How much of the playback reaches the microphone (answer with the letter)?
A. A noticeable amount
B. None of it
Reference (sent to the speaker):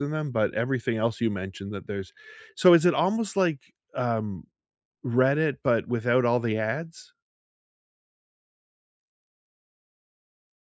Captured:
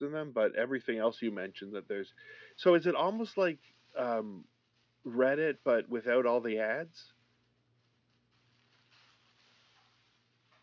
A